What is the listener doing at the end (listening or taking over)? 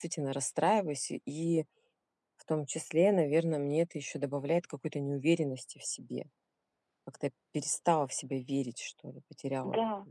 taking over